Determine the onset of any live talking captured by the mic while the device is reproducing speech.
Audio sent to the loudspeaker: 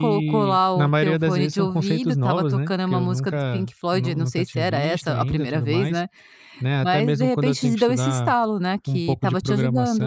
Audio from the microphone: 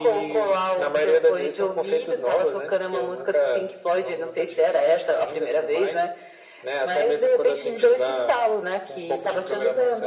none

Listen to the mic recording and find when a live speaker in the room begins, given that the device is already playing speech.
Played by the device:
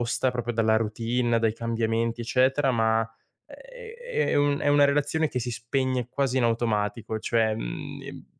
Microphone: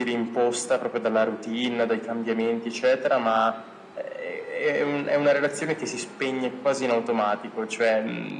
none

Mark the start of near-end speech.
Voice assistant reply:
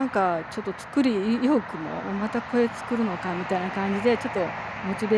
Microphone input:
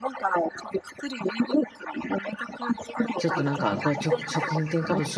3.2 s

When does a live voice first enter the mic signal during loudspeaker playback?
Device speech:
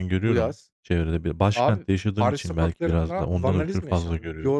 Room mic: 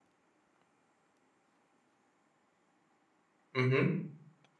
3.5 s

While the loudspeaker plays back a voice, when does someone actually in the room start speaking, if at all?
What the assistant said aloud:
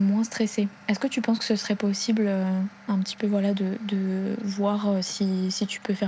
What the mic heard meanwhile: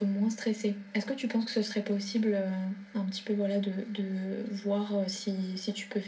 none

